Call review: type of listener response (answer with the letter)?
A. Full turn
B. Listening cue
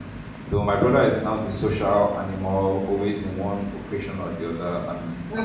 A